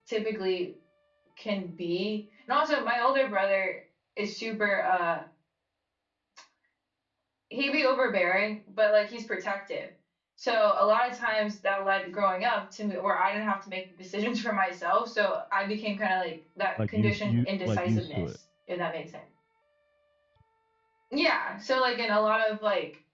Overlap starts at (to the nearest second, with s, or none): 17 s